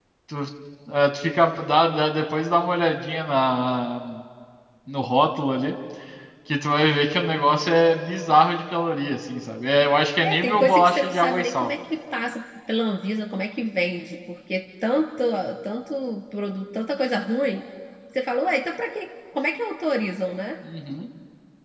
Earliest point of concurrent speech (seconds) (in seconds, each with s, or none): 10.2 s